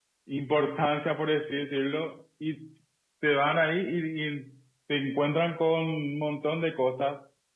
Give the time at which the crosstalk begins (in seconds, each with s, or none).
none